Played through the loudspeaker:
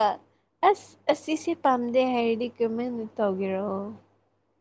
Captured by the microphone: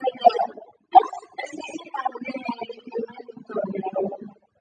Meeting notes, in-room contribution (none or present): none